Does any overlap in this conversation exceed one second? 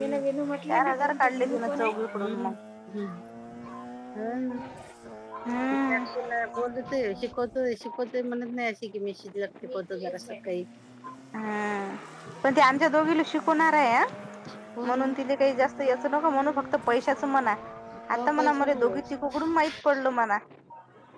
Yes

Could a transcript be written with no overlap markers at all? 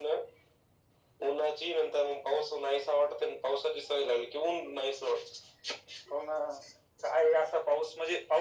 Yes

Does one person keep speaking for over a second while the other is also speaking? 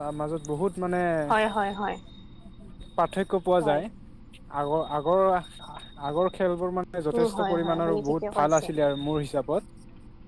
Yes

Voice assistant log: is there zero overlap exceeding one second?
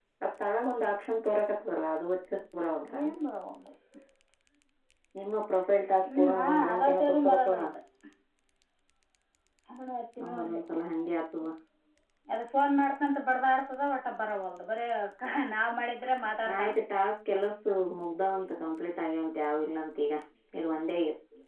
No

